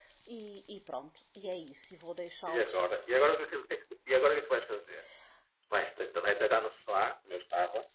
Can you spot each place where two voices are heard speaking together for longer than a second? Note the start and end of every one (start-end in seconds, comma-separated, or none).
none